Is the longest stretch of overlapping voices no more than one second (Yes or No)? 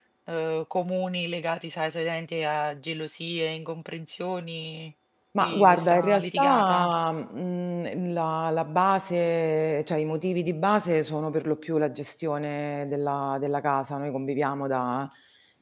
No